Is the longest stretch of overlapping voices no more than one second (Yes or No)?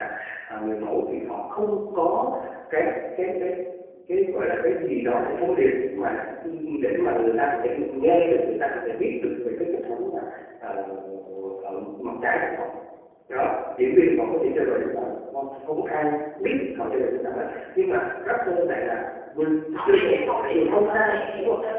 No